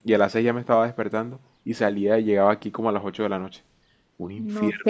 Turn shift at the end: Yes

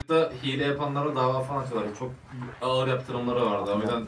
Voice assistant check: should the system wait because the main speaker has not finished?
Yes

